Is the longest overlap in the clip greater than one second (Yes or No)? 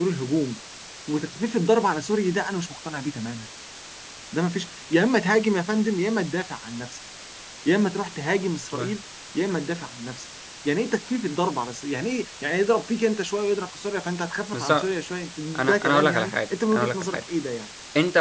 Yes